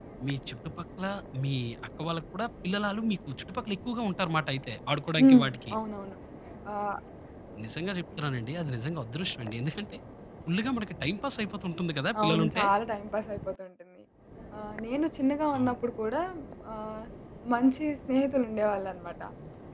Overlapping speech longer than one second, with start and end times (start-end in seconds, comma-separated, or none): none